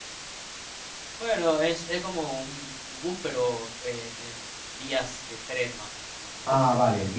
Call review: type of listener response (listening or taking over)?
taking over